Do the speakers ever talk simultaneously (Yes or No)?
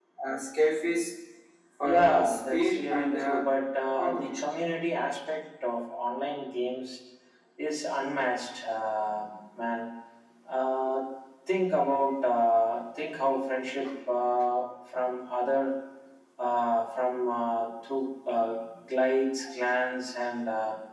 Yes